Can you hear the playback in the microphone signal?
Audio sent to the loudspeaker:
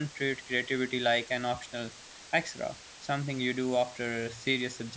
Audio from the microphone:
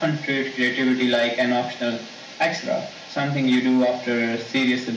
Yes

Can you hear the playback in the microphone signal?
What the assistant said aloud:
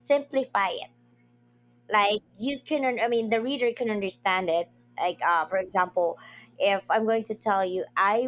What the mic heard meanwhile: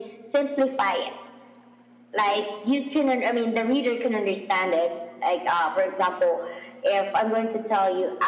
Yes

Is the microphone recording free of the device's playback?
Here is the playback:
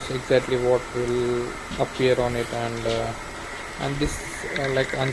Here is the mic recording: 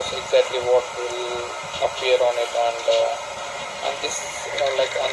No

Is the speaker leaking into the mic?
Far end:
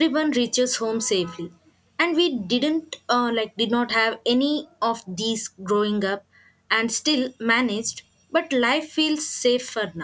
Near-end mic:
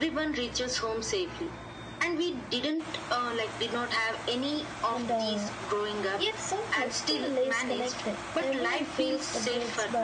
Yes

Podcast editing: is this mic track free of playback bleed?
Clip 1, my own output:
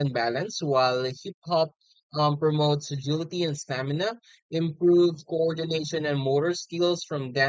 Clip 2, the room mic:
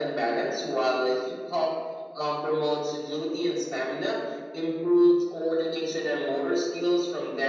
No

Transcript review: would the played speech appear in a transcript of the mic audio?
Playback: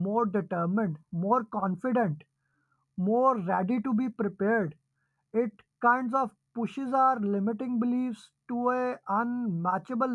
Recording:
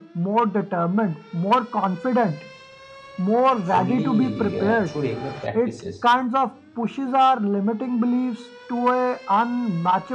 Yes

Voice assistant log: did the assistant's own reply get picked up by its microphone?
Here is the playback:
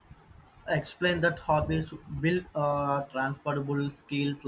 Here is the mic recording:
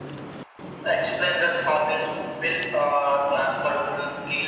Yes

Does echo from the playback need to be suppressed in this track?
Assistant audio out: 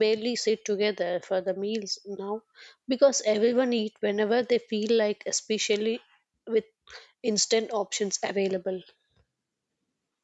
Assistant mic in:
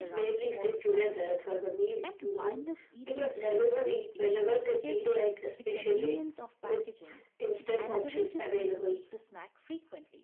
Yes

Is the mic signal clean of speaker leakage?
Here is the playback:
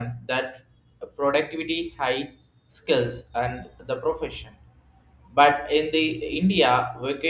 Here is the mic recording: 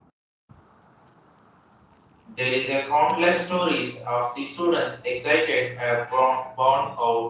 Yes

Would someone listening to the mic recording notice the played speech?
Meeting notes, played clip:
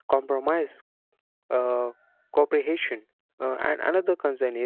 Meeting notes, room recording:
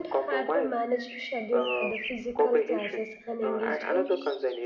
Yes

